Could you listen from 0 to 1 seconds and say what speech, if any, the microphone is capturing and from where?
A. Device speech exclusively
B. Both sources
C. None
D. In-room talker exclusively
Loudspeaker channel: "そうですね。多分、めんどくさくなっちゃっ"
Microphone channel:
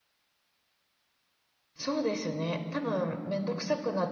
C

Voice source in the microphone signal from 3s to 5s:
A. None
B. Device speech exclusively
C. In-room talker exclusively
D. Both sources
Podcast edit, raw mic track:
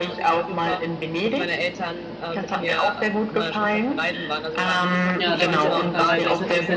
B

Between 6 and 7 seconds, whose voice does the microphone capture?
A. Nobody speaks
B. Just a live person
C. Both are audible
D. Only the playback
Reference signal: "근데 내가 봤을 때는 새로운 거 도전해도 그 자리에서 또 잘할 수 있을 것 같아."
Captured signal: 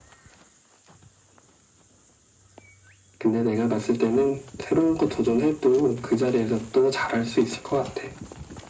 D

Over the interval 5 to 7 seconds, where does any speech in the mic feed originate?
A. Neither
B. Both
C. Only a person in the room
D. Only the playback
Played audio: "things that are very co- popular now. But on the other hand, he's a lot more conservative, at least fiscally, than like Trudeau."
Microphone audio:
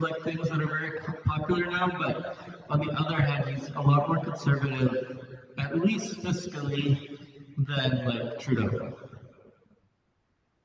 D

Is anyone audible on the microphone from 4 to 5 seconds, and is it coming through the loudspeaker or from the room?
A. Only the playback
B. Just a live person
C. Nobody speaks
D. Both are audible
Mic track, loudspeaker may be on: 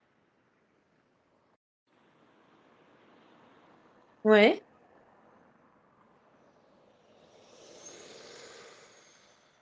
B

